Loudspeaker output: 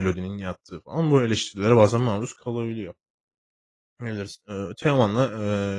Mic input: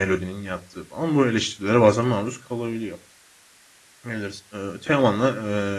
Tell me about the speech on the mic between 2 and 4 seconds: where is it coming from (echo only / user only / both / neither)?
echo only